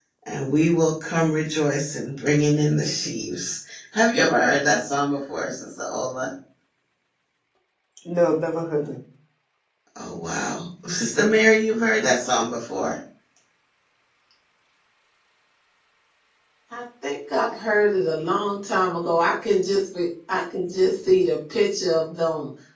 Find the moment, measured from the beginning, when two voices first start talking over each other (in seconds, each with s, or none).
none